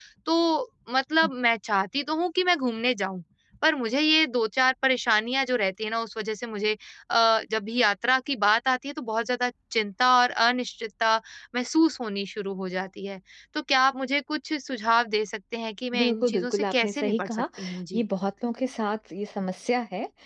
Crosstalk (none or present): present